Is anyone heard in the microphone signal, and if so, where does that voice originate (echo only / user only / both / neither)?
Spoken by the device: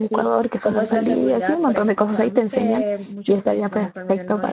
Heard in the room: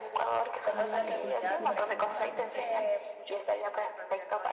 both